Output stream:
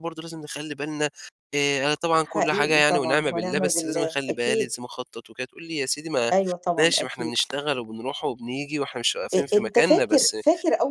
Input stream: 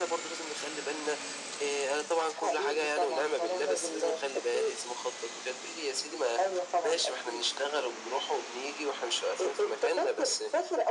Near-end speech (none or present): none